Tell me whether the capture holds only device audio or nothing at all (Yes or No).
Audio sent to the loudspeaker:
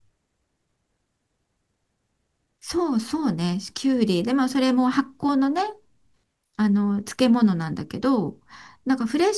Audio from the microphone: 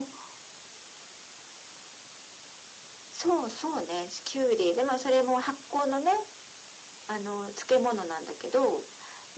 Yes